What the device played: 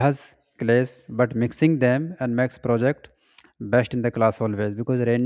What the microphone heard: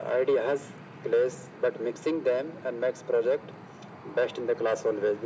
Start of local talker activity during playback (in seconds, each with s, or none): none